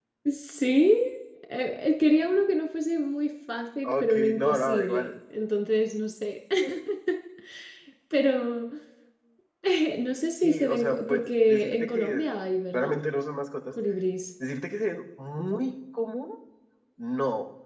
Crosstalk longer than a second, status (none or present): present